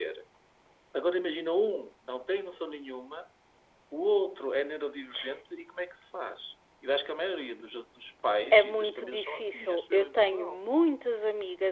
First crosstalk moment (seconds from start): 8.5 s

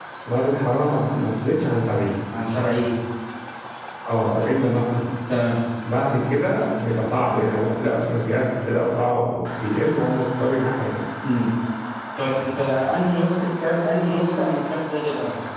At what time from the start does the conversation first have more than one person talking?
none

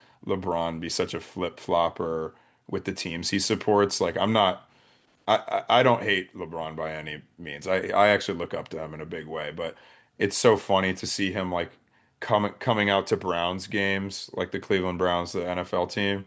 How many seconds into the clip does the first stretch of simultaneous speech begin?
none

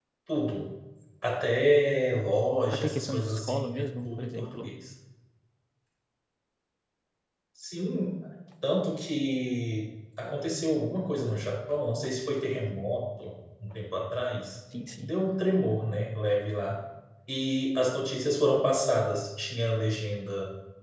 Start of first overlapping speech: 2.7 s

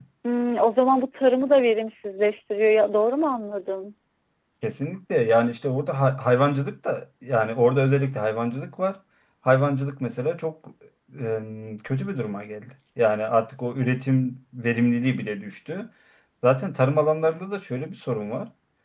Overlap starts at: none

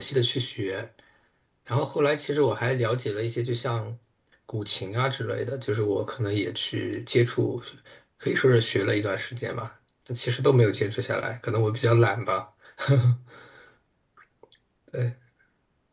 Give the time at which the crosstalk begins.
none

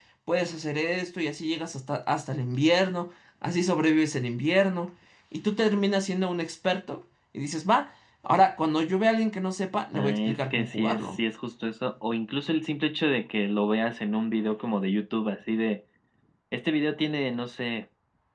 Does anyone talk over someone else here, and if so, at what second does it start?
9.9 s

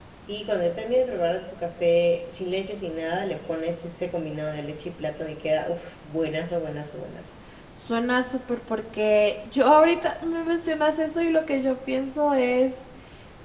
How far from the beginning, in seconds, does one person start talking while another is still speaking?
none

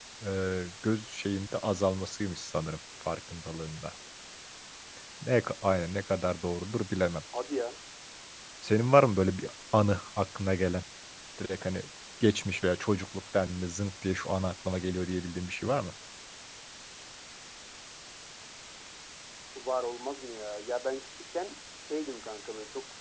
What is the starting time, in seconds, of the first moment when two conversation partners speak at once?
none

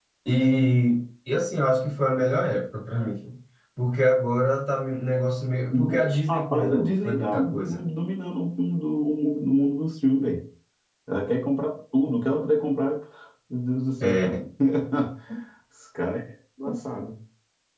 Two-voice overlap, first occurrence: 5.7 s

